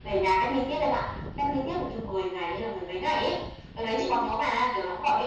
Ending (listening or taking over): listening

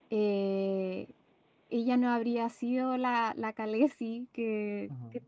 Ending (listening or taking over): listening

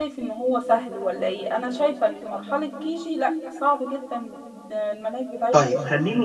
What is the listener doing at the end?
taking over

